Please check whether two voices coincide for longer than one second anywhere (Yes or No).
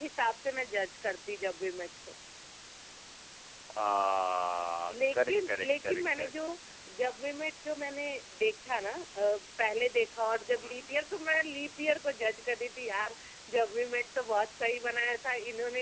Yes